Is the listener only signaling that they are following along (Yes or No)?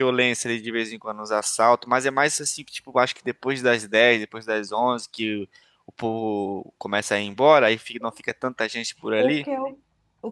No